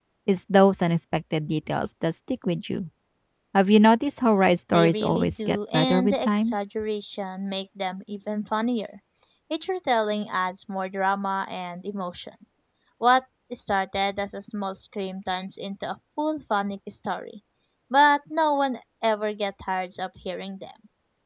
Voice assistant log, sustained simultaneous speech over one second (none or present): present